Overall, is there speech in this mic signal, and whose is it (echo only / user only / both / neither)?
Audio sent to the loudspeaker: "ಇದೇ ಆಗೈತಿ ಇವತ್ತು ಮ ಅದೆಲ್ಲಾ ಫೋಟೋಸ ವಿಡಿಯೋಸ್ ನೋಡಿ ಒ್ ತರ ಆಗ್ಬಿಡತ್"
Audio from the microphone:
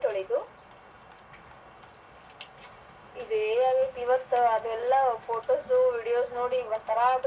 echo only